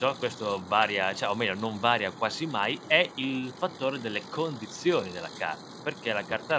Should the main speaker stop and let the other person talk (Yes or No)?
No